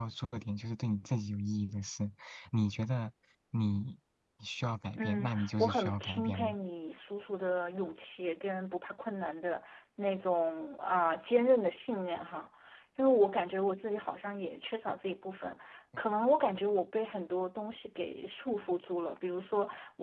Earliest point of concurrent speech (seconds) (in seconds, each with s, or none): 5.0 s